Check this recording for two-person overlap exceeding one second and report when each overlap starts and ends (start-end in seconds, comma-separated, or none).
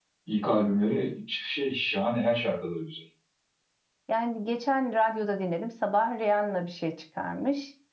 none